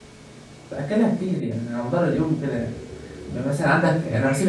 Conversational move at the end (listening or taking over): listening